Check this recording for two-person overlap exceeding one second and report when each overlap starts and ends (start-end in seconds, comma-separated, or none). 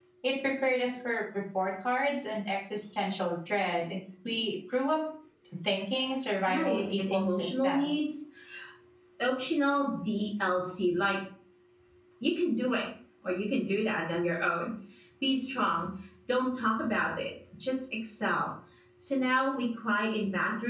6.5-8.0